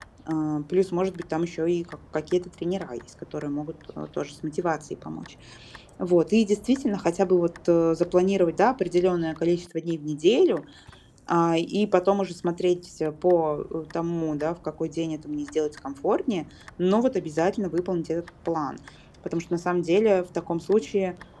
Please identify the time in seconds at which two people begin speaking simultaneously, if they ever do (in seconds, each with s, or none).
none